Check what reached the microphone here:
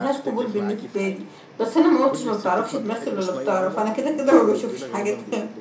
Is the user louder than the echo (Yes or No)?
No